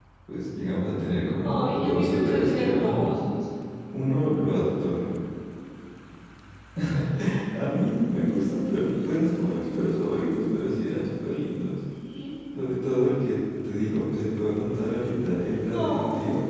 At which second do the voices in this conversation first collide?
1.4 s

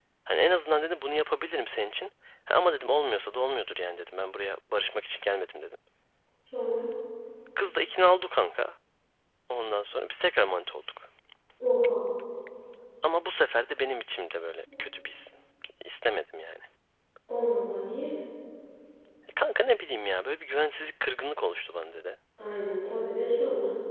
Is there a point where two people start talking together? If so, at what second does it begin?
none

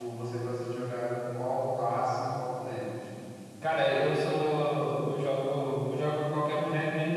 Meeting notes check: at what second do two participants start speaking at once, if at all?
none

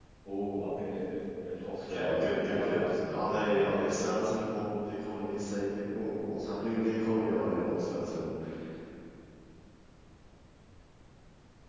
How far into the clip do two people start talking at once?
1.8 s

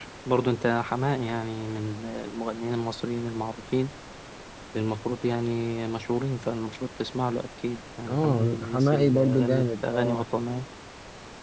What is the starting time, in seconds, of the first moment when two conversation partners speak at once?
8.1 s

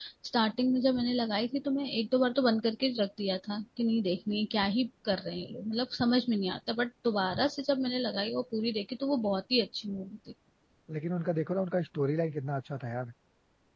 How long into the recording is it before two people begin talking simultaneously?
none

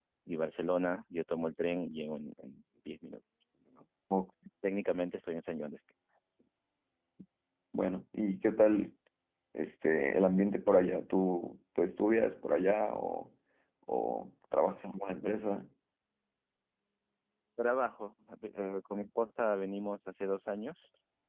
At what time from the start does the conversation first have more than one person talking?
none

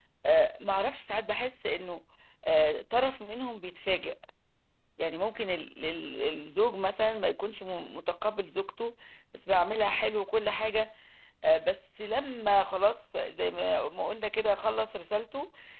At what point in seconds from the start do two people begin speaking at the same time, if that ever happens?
none

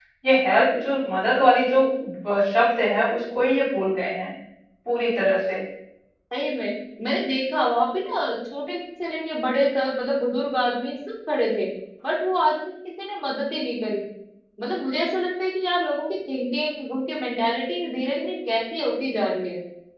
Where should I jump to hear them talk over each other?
none

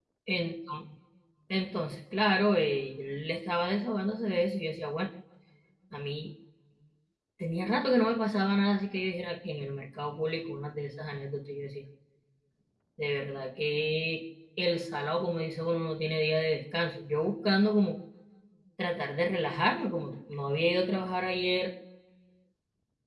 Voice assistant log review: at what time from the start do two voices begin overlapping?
none

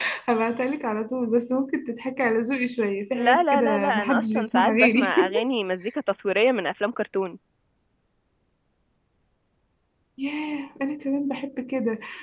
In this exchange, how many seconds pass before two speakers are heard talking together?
3.2 s

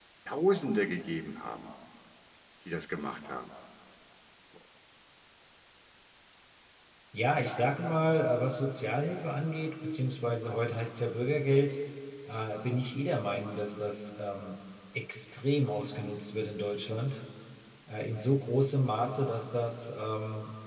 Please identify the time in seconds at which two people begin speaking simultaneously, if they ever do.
none

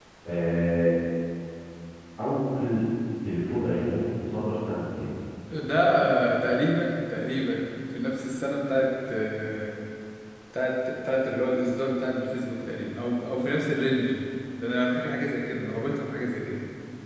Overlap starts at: none

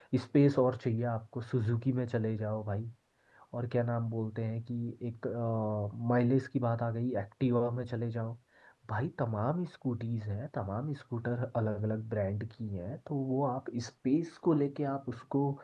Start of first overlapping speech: none

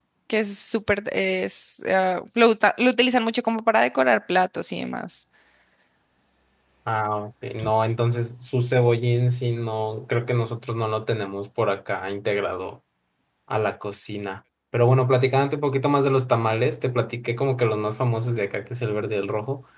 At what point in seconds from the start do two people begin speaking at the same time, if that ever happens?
none

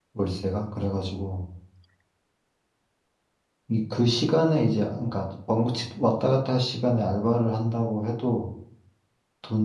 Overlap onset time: none

